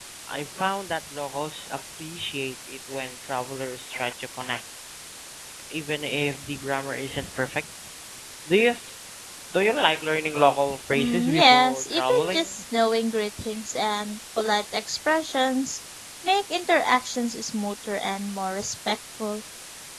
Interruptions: present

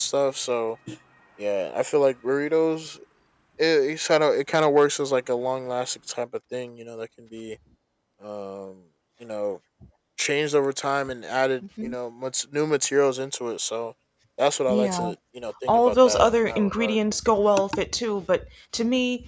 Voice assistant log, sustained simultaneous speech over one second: present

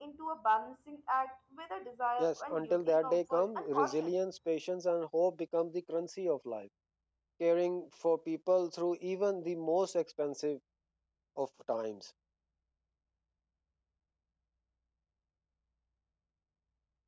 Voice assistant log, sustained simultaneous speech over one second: present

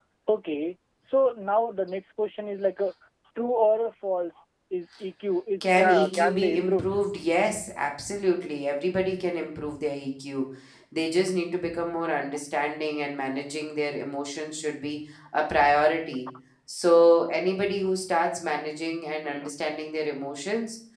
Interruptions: present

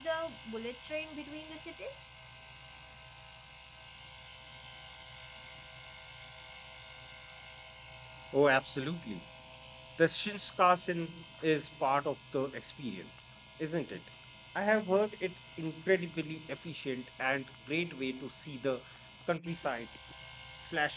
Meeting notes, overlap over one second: none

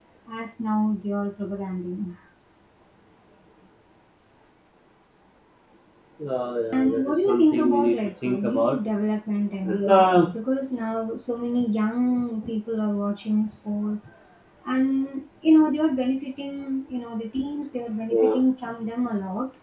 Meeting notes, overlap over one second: present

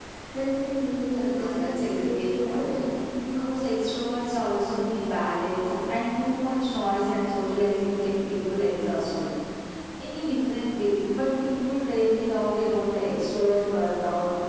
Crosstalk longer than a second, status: present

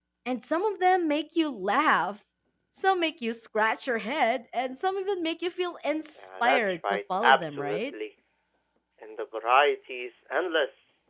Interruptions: present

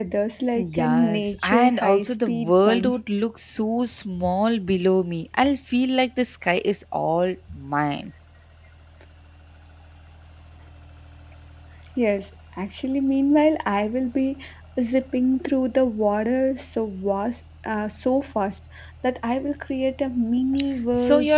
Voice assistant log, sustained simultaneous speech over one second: present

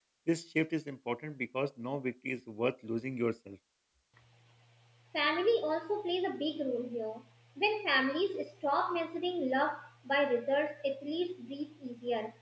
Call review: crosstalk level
none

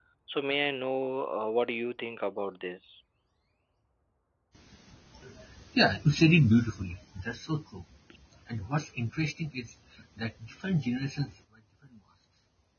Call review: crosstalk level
none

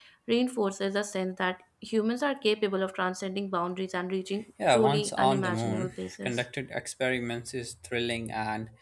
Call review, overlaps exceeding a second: present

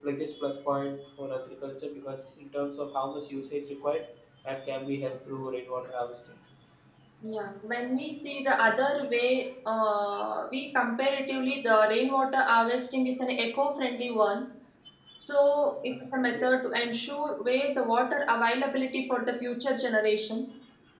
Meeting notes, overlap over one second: none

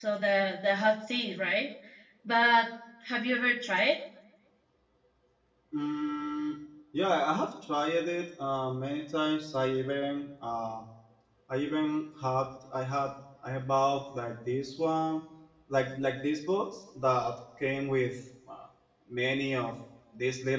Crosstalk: none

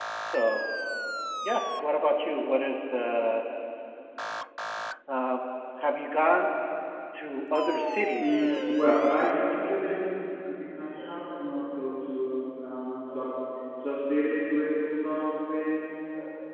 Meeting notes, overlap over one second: present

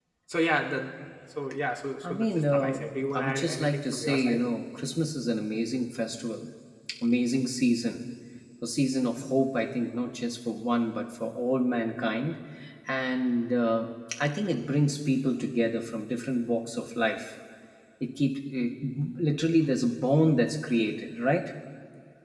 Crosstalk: present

